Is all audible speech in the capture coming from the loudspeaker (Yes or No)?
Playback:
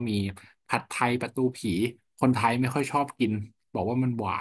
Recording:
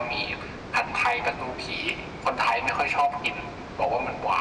Yes